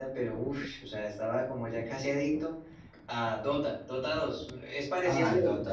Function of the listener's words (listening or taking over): taking over